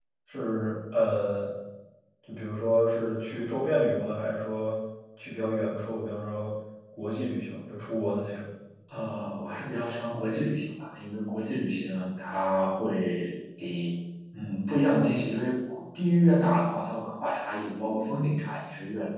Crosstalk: none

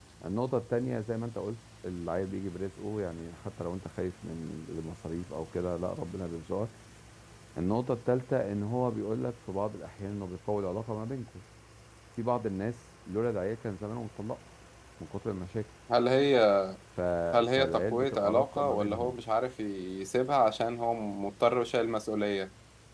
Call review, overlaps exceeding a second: present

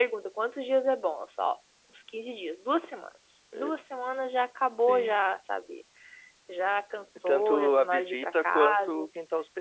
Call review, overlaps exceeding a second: present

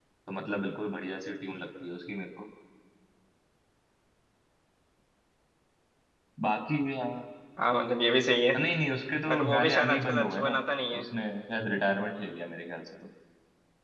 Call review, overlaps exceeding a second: present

